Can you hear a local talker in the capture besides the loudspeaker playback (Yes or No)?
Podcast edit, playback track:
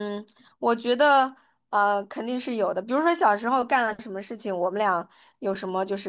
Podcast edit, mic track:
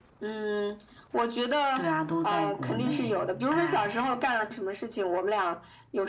Yes